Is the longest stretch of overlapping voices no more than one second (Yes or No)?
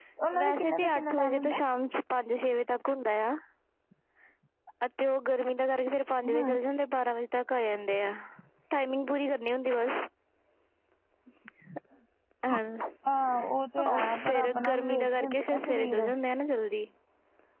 No